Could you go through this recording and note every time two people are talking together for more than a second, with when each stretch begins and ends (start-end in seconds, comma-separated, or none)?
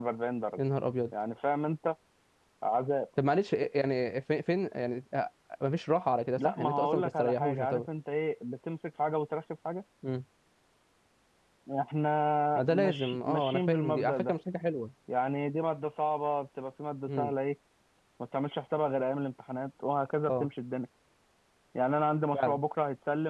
6.4-7.9, 12.7-14.3